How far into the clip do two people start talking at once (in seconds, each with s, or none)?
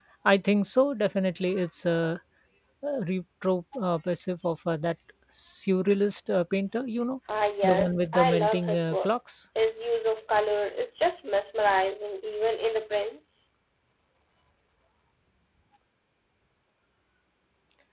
7.6 s